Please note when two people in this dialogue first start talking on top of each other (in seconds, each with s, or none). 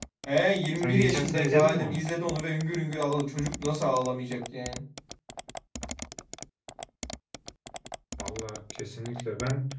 0.8 s